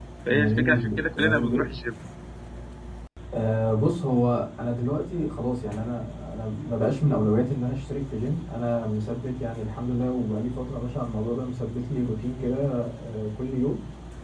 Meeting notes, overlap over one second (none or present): present